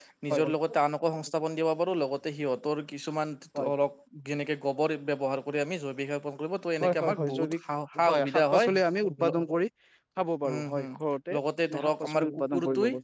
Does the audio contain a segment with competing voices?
Yes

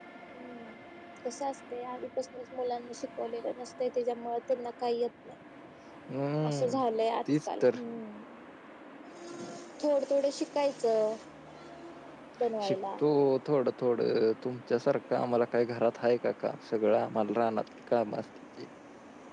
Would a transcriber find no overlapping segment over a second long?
Yes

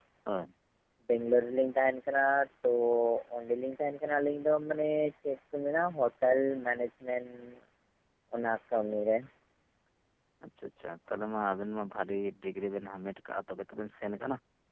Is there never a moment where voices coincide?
Yes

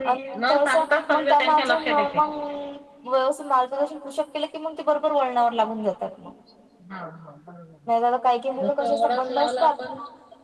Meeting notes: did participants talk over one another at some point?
Yes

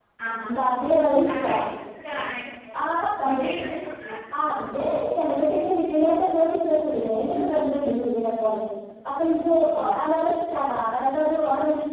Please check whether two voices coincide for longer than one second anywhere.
No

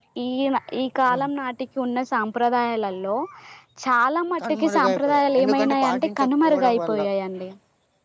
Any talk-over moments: Yes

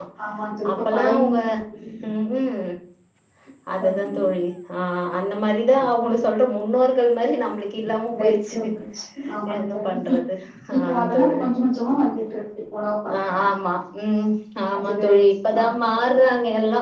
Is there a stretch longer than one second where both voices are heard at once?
Yes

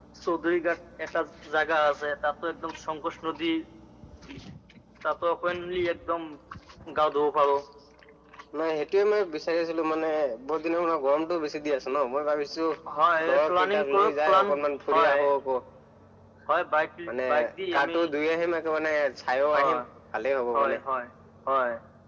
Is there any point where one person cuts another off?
Yes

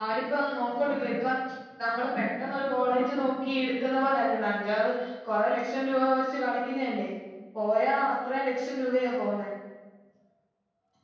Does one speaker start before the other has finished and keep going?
No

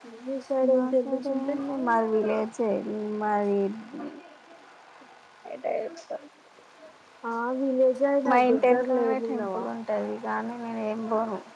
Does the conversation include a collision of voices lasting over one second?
Yes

